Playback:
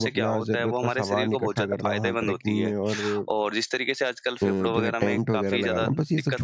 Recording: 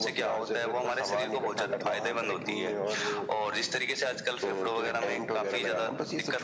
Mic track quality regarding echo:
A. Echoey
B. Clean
A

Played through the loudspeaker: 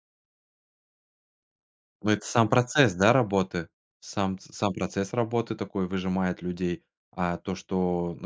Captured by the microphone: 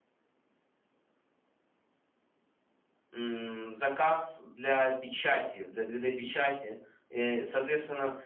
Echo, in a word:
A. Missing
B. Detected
A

